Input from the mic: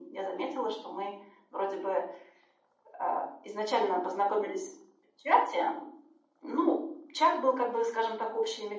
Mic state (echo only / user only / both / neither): echo only